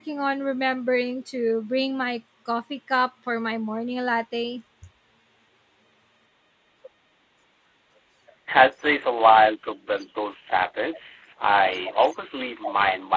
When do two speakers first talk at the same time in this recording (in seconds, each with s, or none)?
none